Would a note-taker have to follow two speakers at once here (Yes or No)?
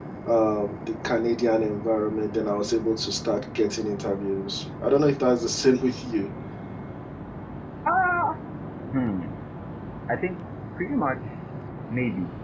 No